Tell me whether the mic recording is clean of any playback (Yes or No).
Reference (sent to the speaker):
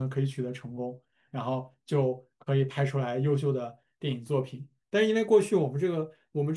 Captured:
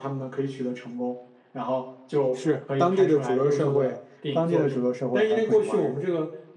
No